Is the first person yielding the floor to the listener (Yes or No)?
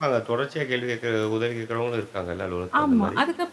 Yes